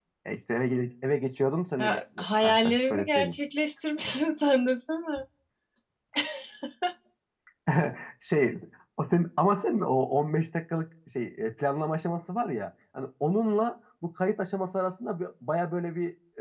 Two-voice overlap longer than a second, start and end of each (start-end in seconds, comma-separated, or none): 1.8-3.4